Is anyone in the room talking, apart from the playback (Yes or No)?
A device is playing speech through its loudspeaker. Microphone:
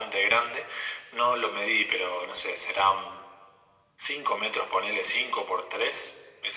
No